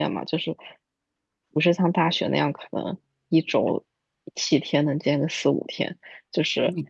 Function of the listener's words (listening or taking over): listening